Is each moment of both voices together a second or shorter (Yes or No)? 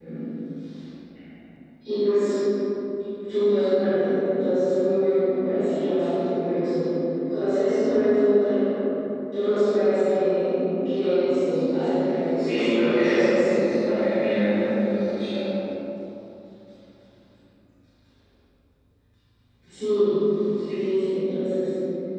No